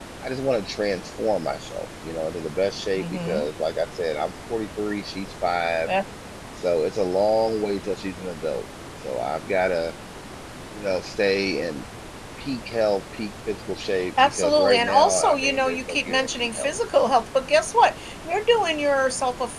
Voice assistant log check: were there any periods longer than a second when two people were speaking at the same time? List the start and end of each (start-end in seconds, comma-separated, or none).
14.2-16.7